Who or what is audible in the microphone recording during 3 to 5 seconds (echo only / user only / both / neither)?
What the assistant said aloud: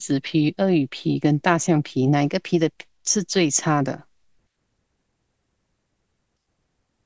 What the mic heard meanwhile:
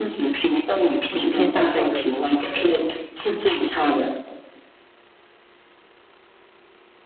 echo only